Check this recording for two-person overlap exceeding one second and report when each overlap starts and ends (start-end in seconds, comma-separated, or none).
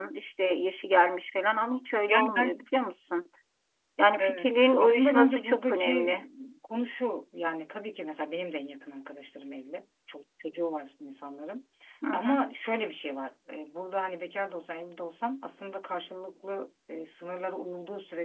4.2-6.1